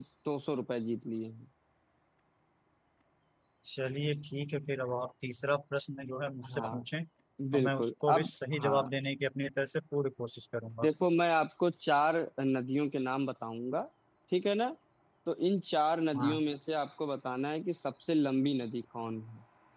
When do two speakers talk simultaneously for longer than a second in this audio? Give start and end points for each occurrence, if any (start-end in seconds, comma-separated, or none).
7.5-8.9